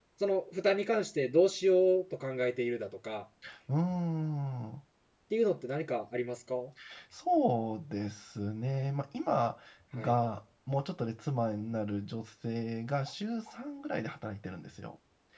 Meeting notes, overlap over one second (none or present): none